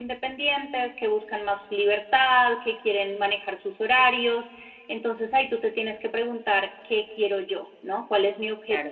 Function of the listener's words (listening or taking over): taking over